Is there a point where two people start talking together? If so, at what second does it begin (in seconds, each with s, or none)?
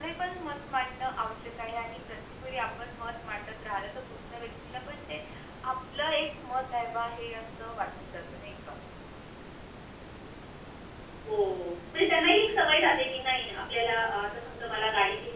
none